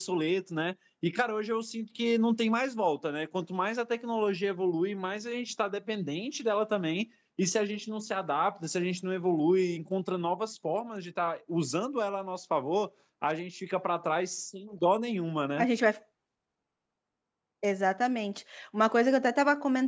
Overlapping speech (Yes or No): No